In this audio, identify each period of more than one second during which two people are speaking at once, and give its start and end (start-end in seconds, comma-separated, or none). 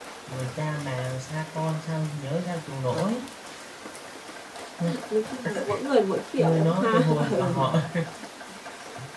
6.4-7.7